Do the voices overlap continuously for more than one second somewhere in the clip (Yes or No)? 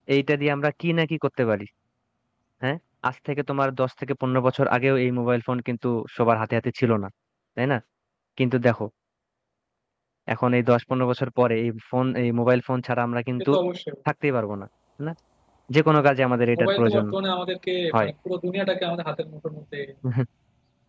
No